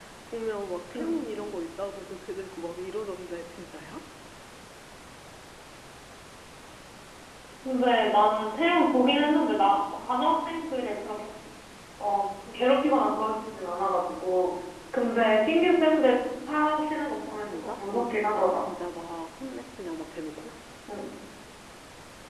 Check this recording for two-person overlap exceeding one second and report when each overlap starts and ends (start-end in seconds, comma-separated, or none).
17.3-18.6